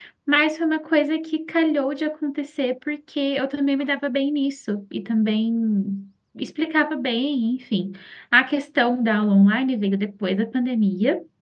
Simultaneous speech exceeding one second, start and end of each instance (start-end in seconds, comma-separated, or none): none